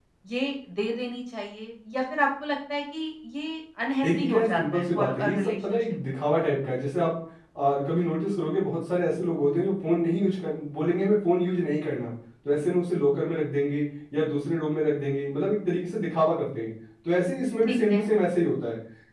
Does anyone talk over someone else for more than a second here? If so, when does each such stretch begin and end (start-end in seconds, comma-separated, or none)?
4.0-5.8